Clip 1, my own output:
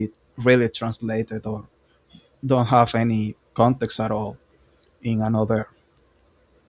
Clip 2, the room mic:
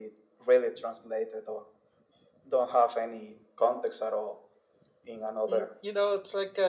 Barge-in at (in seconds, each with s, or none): 5.5 s